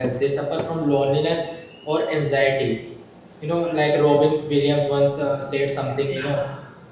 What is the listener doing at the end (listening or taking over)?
listening